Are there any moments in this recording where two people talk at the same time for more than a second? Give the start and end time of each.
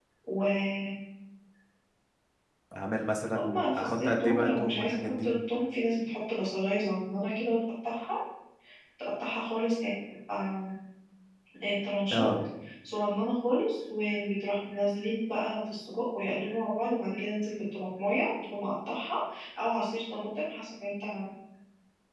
3.4-5.3

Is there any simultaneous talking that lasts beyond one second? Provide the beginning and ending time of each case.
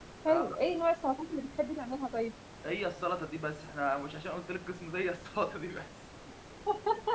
none

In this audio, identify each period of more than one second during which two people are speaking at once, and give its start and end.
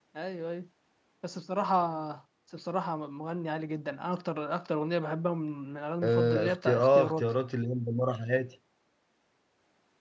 6.0-7.3

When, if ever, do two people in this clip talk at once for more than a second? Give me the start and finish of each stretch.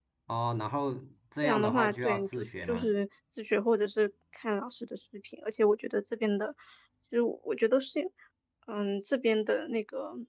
1.4-2.9

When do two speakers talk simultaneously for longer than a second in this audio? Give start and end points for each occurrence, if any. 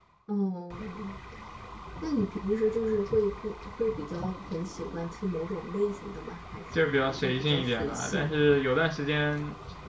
6.7-8.3

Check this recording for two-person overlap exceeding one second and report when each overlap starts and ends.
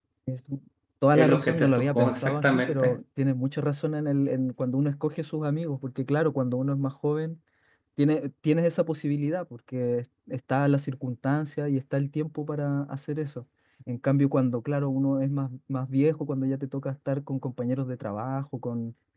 1.1-3.0

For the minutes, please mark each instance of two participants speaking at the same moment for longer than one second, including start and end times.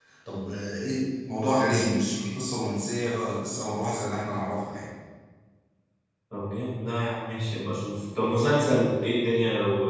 none

